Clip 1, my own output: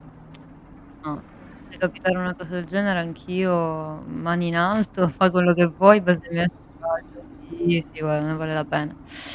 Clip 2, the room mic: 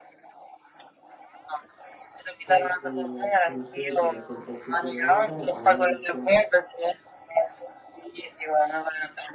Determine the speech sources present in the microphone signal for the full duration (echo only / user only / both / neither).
both